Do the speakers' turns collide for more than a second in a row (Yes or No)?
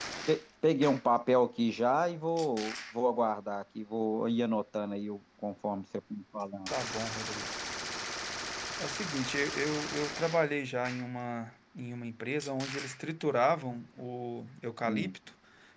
No